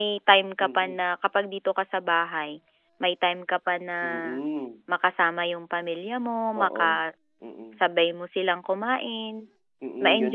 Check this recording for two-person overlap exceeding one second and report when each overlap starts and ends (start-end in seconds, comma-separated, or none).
none